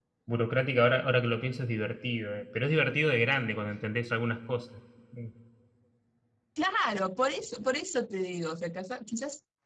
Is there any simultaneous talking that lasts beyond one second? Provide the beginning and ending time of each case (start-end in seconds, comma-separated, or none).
none